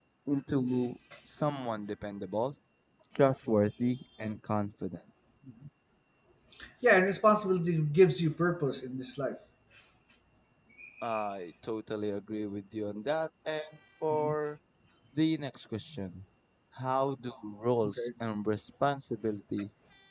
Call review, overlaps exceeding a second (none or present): none